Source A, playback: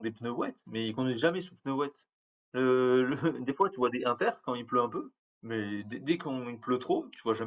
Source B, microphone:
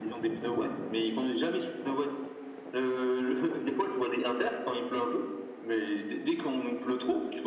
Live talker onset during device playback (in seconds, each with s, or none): none